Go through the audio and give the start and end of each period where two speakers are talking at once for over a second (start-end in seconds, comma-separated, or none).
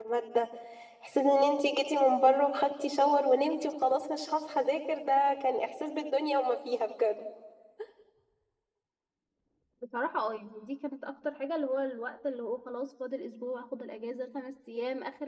none